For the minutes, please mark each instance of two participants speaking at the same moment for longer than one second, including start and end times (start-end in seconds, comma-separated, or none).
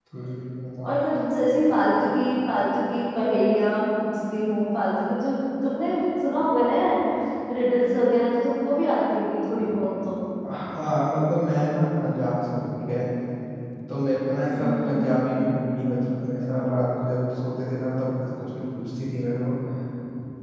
none